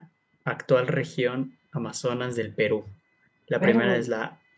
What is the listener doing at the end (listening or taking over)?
listening